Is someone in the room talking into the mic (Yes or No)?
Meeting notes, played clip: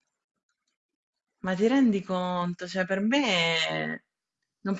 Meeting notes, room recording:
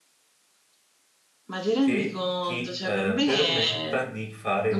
Yes